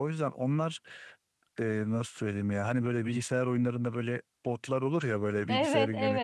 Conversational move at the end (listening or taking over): taking over